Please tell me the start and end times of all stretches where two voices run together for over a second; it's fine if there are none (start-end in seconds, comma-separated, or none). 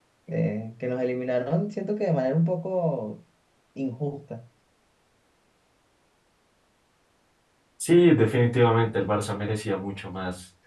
none